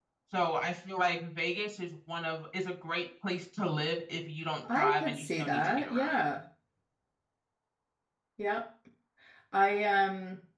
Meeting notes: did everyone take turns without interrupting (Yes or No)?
No